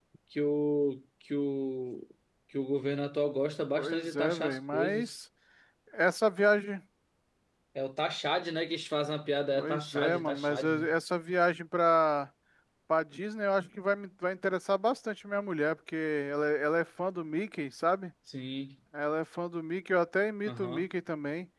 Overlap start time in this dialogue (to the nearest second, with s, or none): 4 s